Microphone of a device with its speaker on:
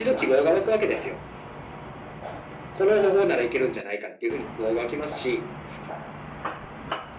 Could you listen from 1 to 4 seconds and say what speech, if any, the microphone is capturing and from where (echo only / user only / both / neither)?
echo only